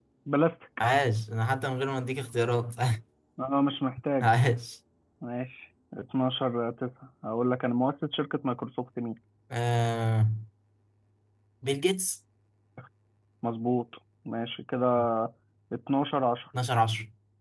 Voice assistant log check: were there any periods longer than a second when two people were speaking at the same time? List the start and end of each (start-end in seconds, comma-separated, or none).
none